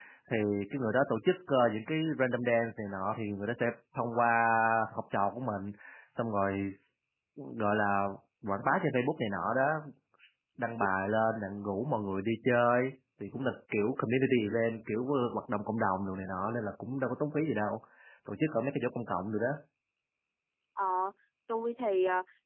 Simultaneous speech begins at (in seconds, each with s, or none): none